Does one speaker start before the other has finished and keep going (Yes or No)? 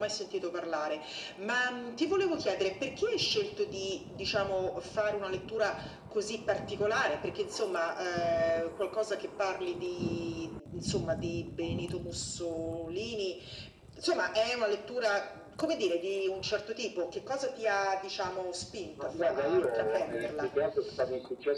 Yes